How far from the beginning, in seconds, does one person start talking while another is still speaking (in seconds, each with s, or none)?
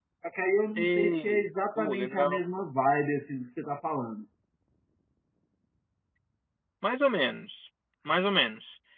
0.8 s